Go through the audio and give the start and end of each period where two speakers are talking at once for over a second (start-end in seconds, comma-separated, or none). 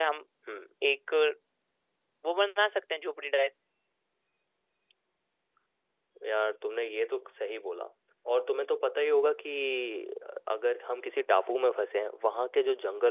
none